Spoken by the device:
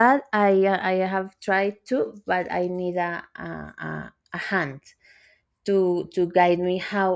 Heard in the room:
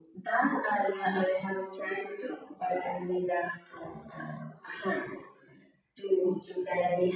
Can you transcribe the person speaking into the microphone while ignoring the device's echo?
none

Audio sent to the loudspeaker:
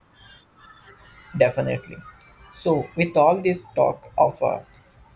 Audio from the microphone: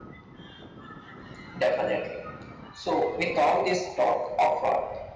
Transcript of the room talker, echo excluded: none

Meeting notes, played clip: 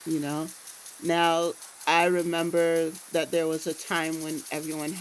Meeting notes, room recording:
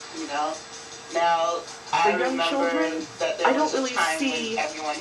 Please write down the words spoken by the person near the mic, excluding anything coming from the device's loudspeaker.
for young children i don't really see

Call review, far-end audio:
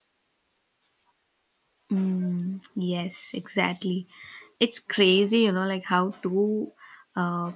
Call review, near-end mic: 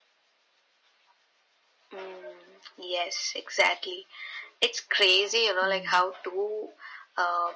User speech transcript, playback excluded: Mm.

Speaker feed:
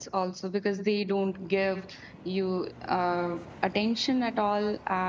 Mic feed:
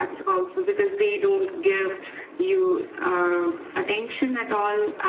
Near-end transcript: none

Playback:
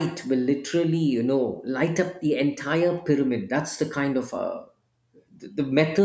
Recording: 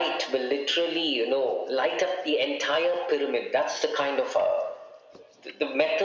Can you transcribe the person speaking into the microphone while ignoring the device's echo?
none

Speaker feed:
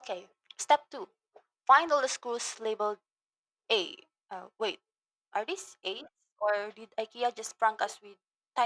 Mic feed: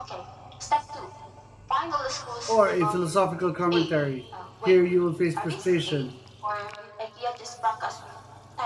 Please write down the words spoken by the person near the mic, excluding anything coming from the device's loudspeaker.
Or a philosophical commentary. Here you will face frustration.

